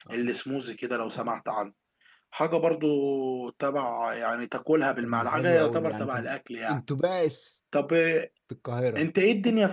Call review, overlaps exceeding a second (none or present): present